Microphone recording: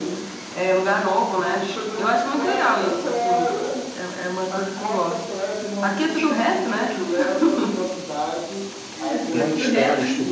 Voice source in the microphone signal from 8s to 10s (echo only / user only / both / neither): both